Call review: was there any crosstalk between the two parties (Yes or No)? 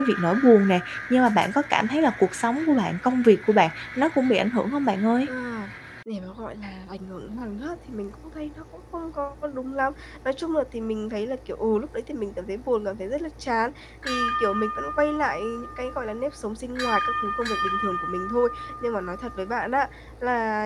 No